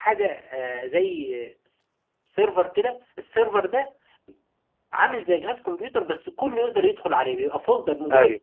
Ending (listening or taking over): listening